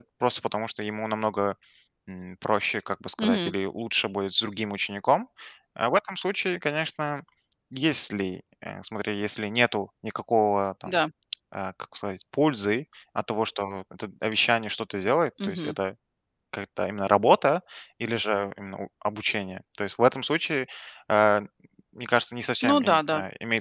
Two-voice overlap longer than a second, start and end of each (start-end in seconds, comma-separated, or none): none